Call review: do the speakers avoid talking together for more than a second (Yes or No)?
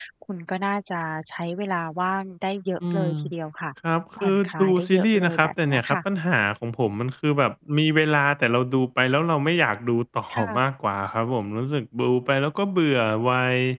No